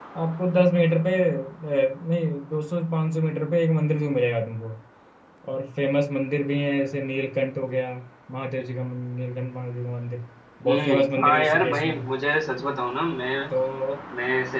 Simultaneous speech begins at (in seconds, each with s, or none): 10.6 s